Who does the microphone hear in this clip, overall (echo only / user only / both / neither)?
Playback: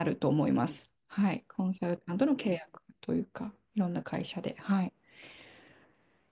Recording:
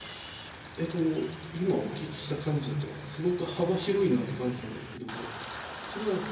user only